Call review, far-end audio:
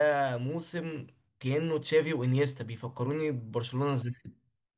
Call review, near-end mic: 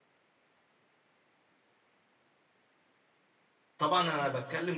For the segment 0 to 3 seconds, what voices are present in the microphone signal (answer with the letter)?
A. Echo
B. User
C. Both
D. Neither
D